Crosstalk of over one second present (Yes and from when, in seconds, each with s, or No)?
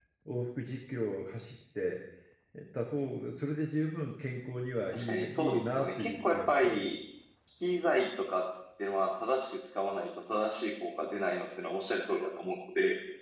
Yes, from 4.9 s